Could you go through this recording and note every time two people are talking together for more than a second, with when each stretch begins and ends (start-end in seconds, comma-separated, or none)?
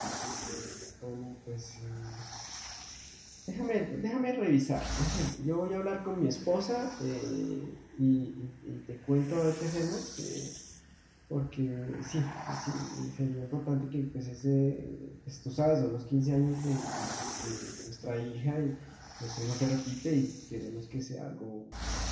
none